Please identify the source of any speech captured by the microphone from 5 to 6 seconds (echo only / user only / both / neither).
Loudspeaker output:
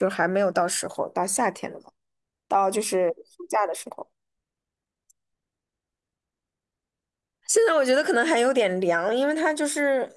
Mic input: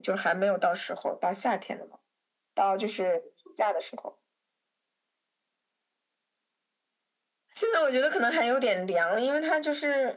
neither